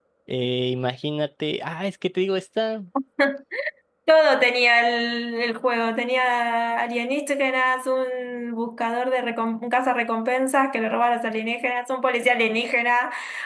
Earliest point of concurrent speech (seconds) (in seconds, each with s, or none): none